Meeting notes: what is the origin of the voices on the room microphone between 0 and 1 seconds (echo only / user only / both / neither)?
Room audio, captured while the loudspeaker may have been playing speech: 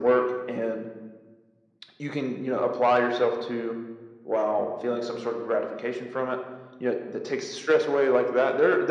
echo only